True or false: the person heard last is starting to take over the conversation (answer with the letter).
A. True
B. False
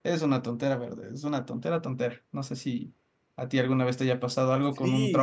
A